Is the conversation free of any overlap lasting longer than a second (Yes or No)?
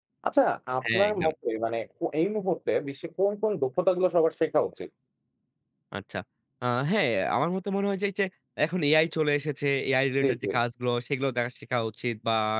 Yes